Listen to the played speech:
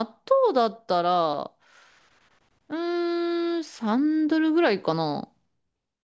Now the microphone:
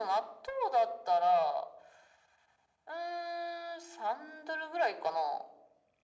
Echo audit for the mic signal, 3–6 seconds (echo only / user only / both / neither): echo only